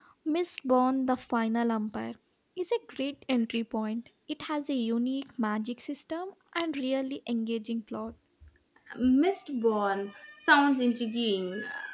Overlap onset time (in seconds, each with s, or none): none